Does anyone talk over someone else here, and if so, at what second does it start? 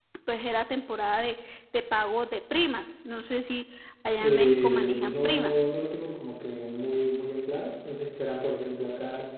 4.2 s

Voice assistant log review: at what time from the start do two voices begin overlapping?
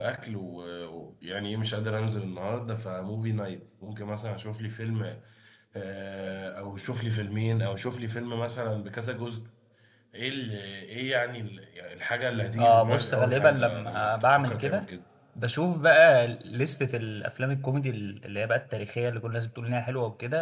12.6 s

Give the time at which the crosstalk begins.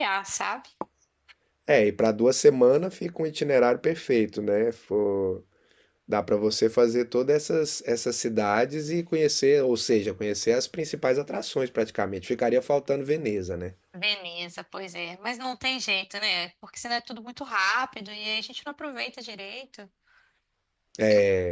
none

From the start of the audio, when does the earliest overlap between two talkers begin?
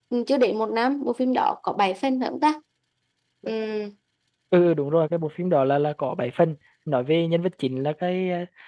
none

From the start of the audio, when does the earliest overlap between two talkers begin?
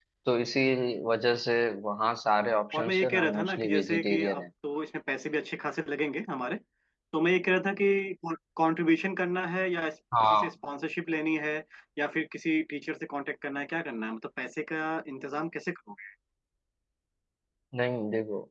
2.7 s

